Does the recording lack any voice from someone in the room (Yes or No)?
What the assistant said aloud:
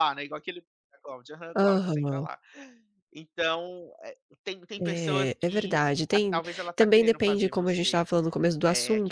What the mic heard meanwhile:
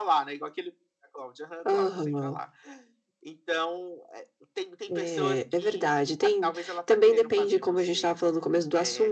Yes